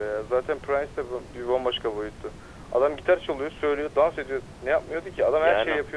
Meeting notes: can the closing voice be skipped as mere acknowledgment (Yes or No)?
No